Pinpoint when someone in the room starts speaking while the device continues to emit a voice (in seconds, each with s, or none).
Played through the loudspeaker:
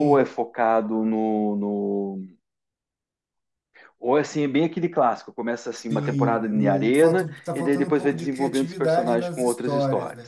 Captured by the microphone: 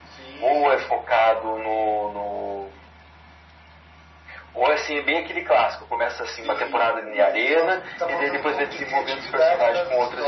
none